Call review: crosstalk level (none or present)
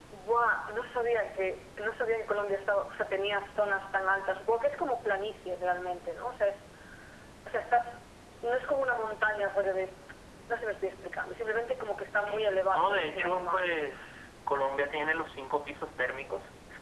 present